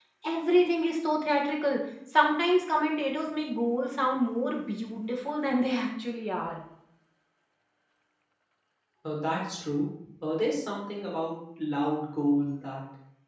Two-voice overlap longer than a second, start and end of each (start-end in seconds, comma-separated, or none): none